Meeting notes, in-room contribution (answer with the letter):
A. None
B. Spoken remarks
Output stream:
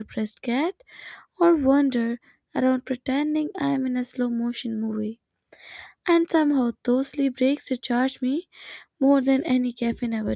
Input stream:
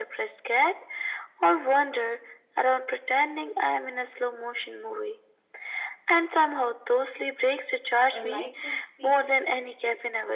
B